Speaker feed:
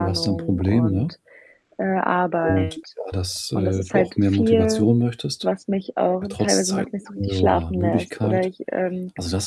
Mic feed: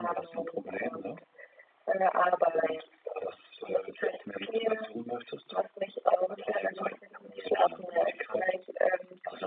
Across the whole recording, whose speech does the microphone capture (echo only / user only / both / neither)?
echo only